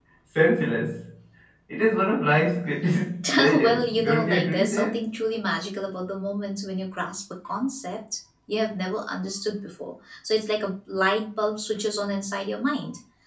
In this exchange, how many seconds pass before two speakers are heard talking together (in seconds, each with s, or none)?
3.5 s